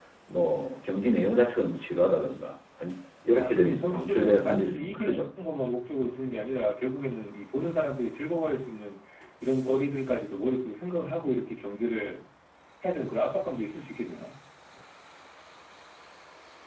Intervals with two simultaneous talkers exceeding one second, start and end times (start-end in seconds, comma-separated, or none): 3.3-5.2